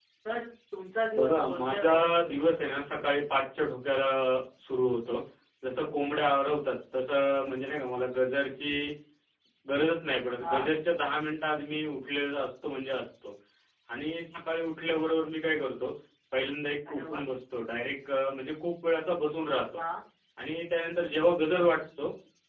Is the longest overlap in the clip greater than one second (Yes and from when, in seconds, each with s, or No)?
Yes, from 1.1 s